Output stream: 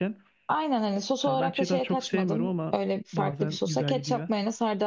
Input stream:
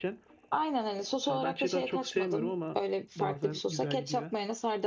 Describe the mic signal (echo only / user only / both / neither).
echo only